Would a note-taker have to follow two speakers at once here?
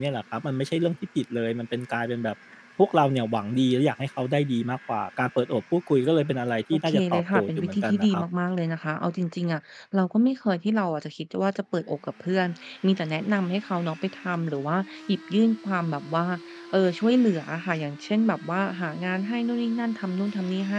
Yes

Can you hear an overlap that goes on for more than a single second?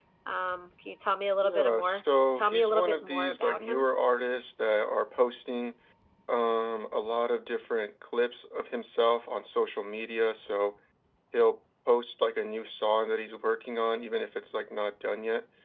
Yes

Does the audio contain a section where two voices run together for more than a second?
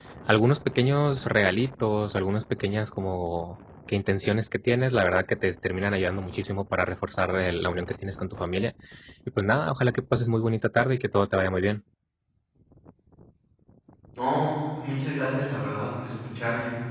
No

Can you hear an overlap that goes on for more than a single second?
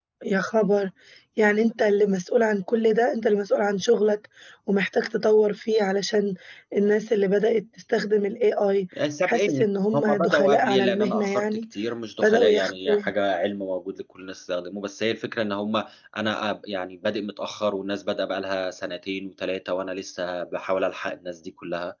Yes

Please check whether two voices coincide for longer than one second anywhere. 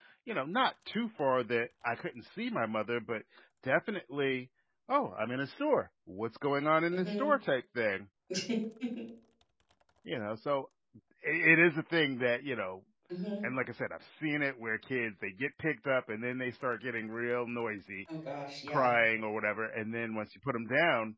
No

